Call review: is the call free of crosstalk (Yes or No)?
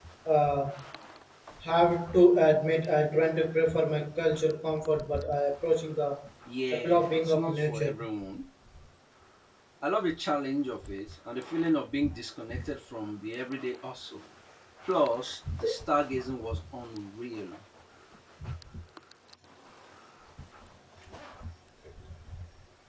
No